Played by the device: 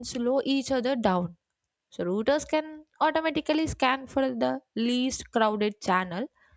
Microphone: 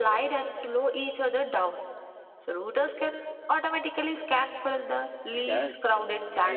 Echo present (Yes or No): Yes